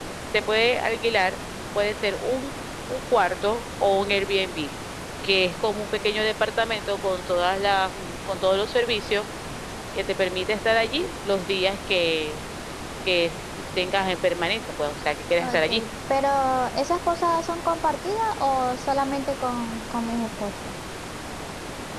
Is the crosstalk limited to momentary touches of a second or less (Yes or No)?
Yes